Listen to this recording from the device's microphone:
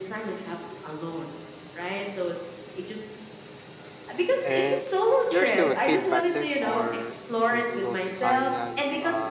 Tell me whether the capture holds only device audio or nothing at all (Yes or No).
No